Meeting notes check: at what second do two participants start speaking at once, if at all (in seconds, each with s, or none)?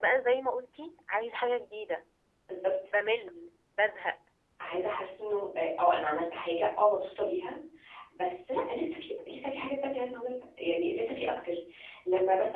none